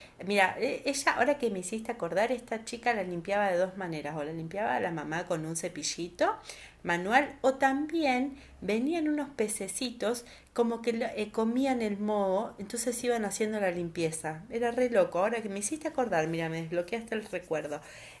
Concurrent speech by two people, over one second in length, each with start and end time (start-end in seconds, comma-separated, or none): none